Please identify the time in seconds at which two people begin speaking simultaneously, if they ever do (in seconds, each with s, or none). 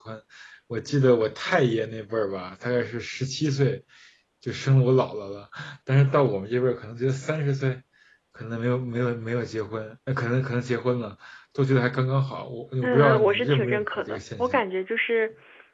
12.8 s